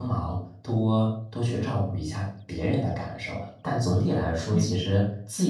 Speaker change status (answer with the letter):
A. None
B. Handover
A